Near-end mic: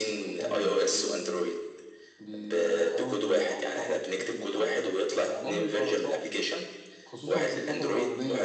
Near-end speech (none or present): present